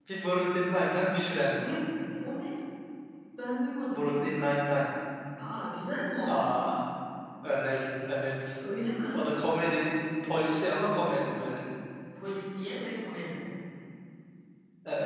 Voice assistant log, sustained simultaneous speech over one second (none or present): none